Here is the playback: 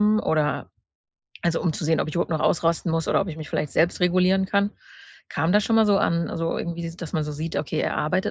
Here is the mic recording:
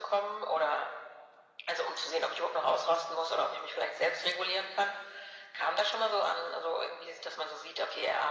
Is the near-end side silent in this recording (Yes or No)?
Yes